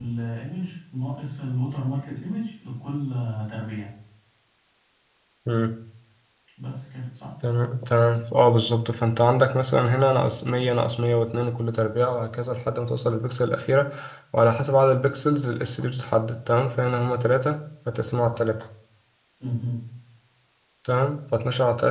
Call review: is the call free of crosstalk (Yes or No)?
Yes